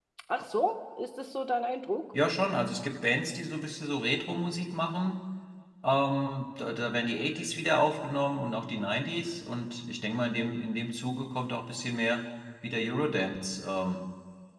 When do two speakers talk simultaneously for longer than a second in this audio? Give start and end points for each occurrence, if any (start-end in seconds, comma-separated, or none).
none